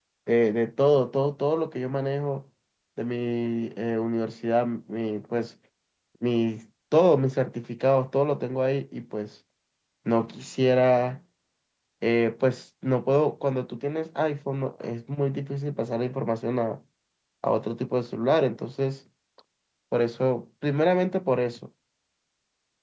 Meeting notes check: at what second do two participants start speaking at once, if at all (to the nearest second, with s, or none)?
none